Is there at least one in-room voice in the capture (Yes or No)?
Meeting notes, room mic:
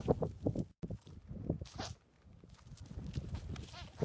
No